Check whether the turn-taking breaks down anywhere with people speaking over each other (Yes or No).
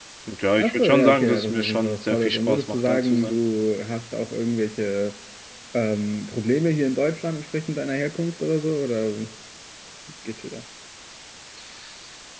Yes